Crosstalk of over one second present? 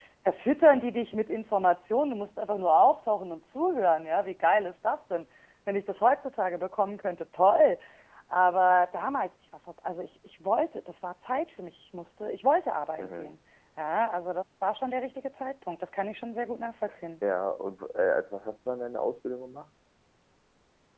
No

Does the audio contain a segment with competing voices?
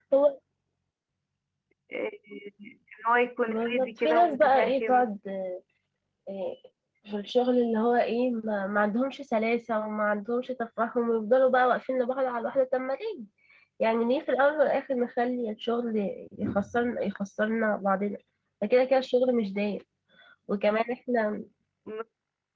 Yes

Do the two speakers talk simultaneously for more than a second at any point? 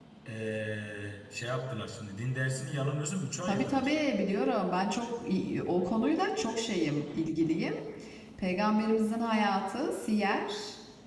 No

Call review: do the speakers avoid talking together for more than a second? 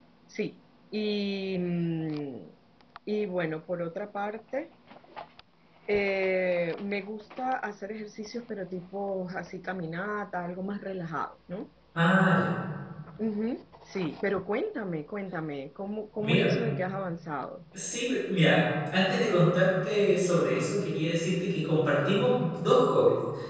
Yes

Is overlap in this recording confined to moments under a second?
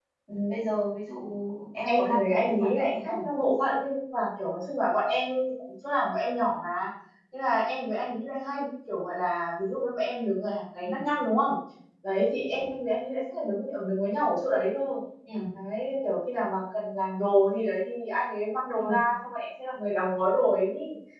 No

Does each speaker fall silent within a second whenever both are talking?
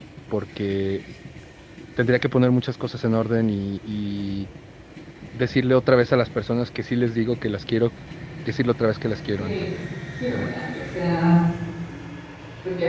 Yes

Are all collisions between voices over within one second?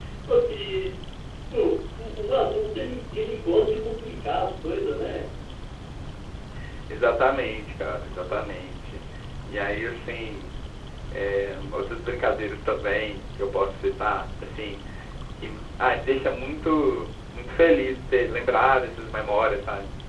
Yes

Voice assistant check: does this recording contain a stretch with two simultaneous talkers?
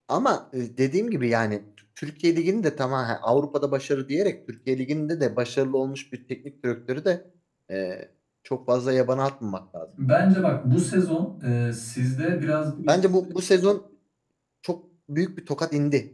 No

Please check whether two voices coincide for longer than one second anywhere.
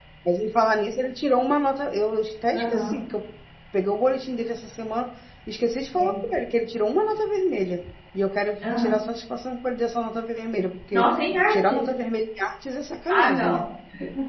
No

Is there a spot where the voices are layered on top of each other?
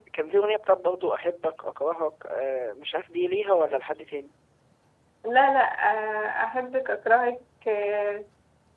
No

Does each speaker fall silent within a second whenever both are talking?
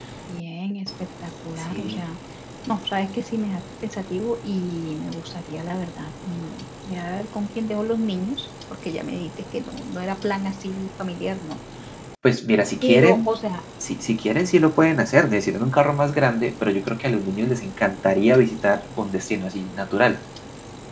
Yes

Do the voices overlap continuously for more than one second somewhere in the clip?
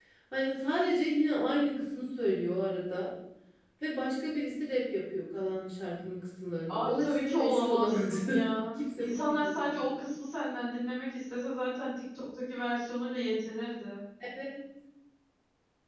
Yes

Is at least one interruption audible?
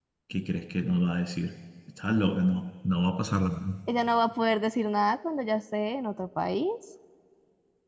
No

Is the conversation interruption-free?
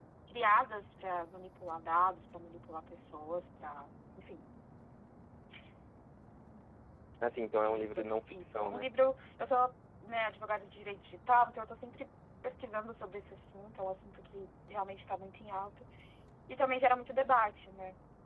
No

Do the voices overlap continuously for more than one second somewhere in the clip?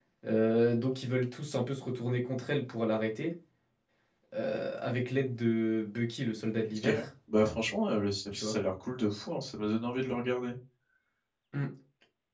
No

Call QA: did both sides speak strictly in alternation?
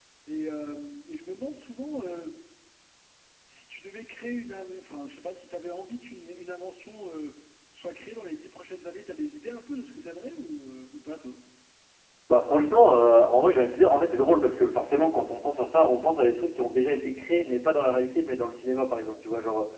Yes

